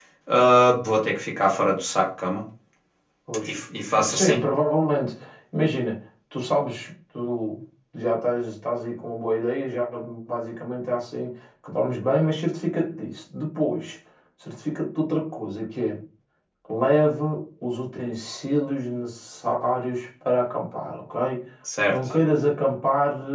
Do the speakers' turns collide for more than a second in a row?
No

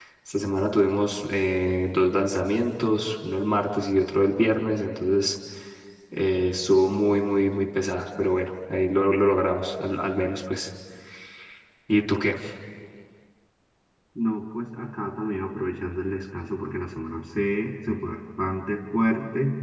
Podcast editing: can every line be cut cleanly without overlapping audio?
Yes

